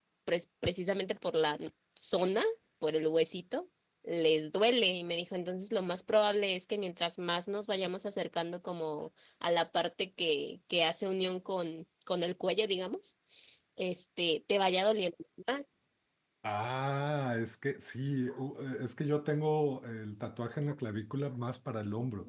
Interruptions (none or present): none